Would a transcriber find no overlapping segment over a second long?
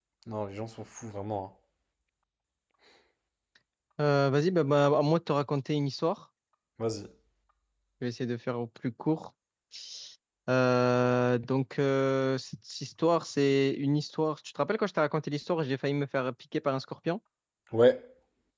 Yes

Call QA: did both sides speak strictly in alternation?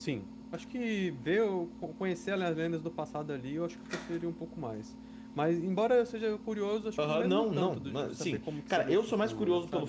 No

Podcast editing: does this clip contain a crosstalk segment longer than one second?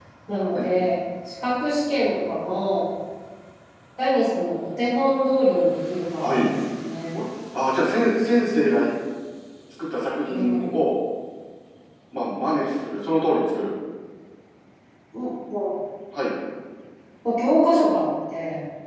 No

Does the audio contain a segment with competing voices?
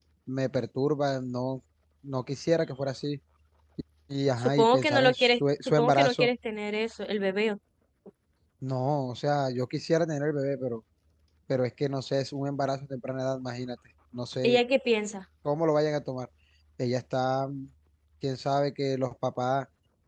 Yes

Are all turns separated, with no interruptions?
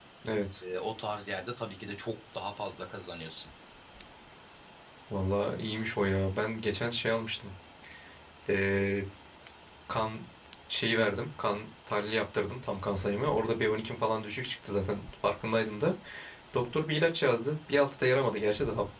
Yes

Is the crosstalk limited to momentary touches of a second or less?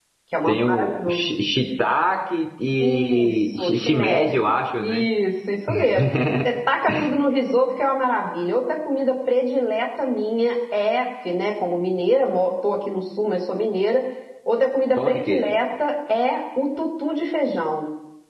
No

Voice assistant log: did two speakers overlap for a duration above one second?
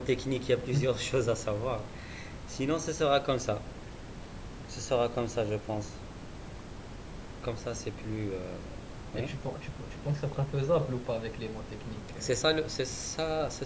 No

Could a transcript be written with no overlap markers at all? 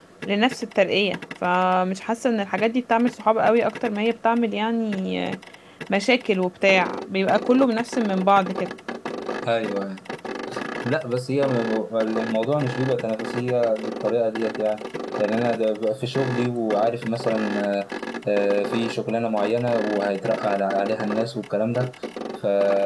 Yes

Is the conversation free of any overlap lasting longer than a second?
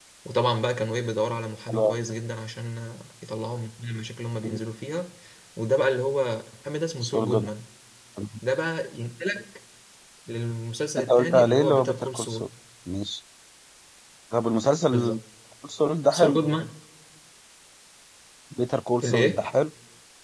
No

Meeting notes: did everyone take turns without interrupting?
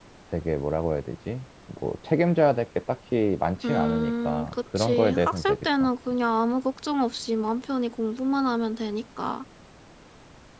No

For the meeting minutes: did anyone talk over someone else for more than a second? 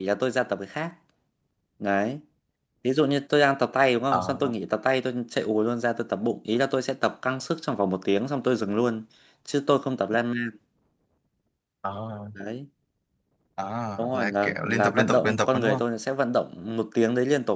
Yes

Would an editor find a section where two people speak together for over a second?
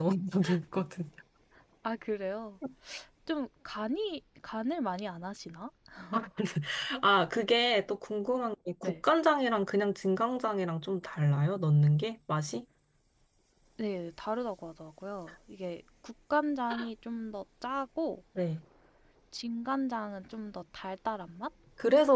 No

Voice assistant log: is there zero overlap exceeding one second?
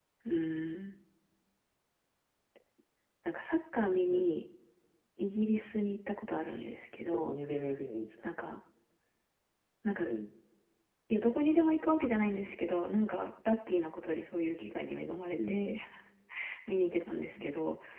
Yes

